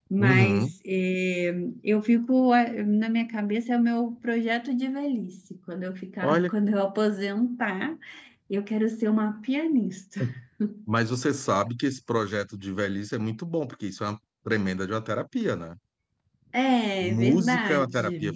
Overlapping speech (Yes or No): Yes